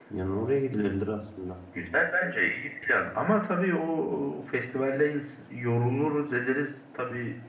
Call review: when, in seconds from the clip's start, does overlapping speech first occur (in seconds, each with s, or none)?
none